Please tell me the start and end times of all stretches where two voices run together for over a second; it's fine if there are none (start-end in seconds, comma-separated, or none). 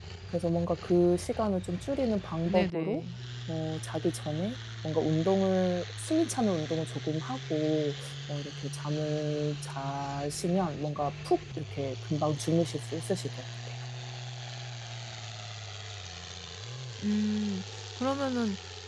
none